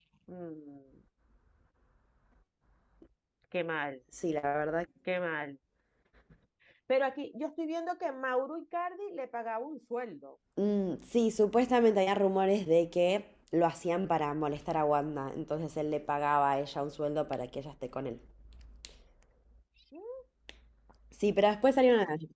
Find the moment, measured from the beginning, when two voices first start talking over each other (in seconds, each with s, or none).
none